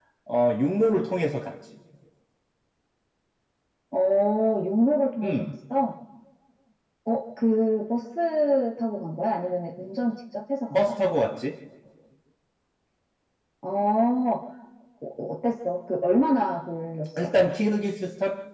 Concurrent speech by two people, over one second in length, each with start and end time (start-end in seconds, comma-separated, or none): none